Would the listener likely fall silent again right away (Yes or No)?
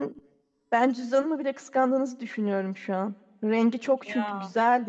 Yes